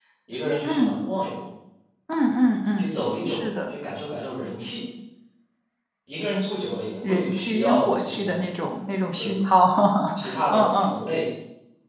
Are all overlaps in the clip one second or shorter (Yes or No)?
No